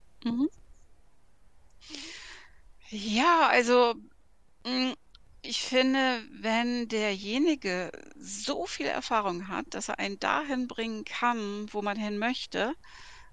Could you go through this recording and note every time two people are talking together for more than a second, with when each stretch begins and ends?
none

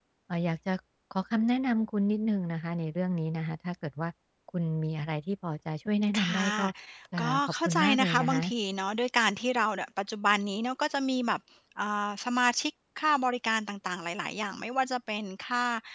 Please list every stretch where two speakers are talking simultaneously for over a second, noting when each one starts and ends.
7.2-8.4

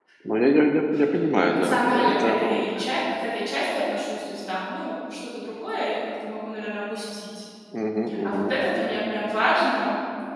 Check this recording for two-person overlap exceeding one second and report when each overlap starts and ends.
1.4-2.7

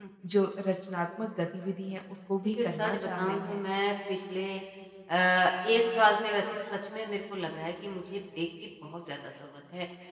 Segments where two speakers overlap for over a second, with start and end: 2.4-3.7

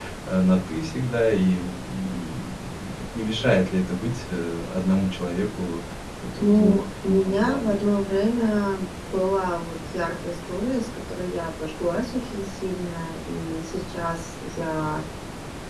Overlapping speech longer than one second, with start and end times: 6.4-7.8

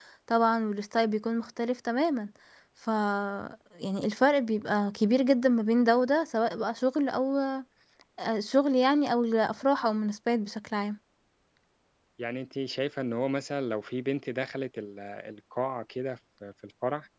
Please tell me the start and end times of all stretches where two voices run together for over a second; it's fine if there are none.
none

